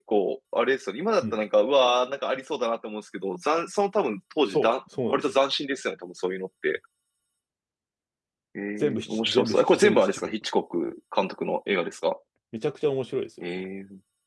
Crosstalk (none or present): present